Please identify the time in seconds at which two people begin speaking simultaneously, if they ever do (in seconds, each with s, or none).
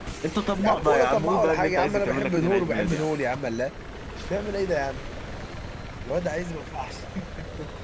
0.6 s